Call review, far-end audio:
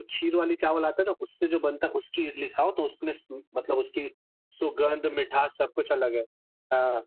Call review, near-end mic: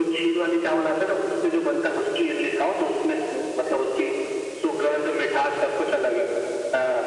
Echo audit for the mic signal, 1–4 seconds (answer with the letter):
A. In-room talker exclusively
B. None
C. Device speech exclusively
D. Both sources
C